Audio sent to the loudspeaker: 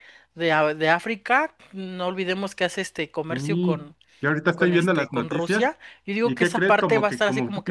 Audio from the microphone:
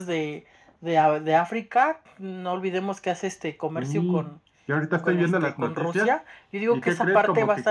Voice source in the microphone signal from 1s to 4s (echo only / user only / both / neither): echo only